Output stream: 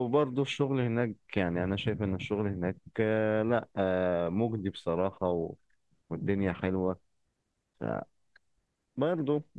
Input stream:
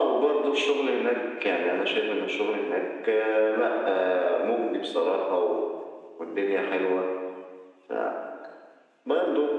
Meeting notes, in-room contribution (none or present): none